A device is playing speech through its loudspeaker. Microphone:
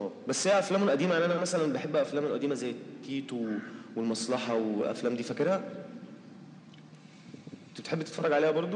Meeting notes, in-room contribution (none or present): none